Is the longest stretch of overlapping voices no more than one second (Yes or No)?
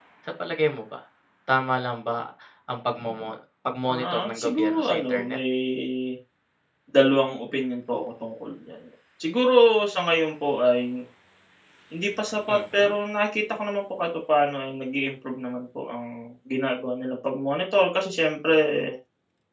No